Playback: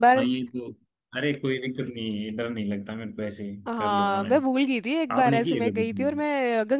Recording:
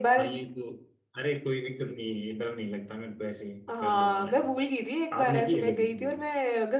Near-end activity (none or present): none